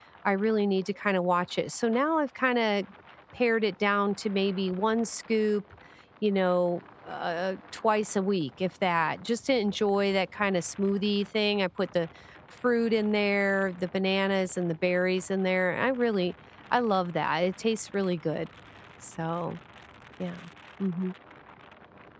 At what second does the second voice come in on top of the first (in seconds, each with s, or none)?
none